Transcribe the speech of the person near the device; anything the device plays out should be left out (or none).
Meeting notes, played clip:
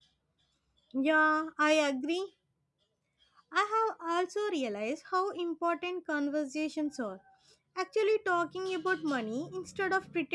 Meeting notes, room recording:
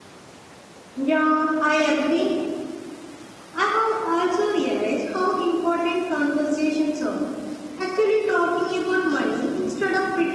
none